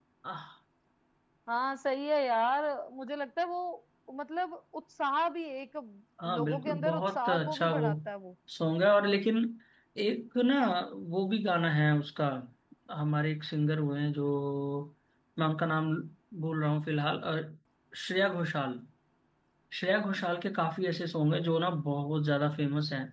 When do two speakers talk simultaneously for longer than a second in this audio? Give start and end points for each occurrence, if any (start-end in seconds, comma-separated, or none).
6.3-7.8